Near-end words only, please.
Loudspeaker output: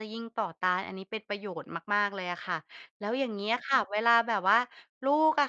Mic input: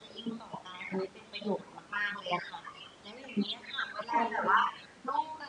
ค่ะ ยินดี

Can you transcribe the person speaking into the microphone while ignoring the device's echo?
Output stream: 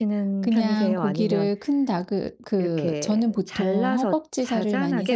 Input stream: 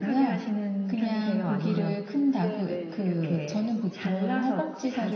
네네.

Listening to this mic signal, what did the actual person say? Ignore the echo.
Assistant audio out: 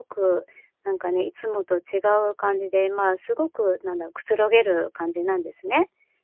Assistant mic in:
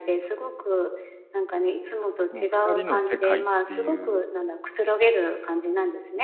もう二人の世界っていう。

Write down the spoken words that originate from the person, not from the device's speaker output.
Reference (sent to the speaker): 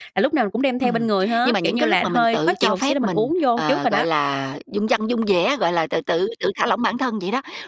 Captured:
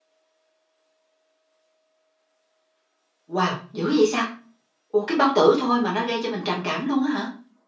Wow! Dữ vậy sao? Ủa, cái bao tử thôi mà nó gây cho mình trầm cảm luôn á hả?

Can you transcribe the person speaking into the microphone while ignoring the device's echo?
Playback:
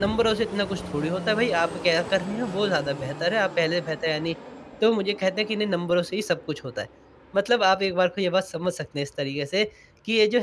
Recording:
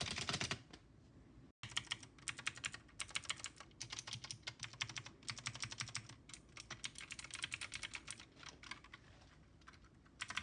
none

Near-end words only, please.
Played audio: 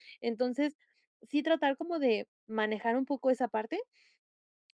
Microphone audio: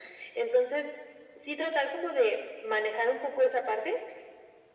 none

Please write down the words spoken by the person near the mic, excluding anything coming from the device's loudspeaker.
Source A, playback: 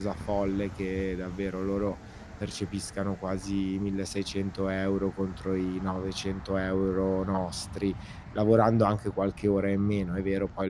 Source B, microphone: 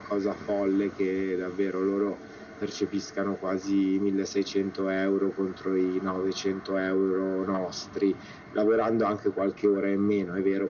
none

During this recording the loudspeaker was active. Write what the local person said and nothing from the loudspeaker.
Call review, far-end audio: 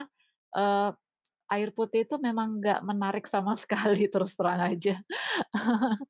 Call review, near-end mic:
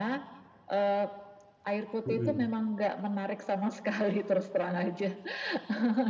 Mhm.

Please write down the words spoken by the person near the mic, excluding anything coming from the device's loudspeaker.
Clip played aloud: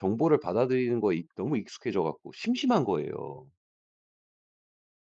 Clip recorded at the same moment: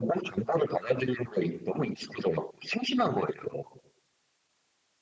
none

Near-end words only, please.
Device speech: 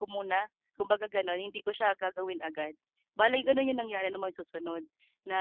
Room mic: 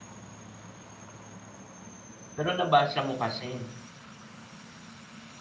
Pero nabasa mo kasi.

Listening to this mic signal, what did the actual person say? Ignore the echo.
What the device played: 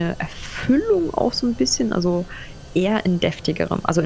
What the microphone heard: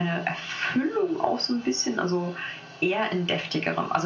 none

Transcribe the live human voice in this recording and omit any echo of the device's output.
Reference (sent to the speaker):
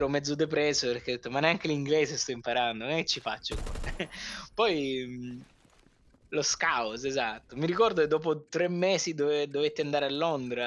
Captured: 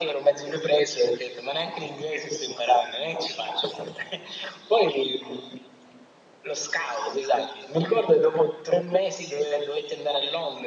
none

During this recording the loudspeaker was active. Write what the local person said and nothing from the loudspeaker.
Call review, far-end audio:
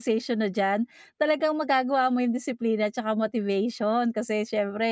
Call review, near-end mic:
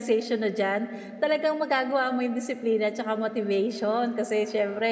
none

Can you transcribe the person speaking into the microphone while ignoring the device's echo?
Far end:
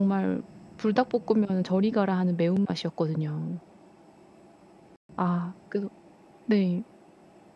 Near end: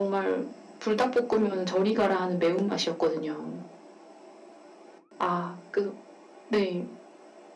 none

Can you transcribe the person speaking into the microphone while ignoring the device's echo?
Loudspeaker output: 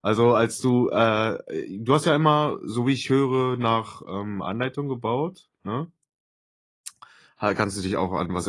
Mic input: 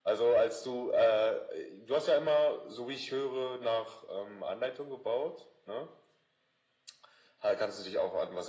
none

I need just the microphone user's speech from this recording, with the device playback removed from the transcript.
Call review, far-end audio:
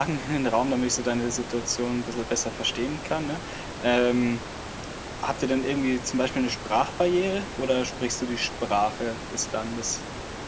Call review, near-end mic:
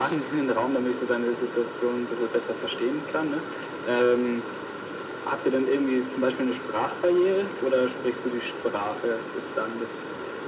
none

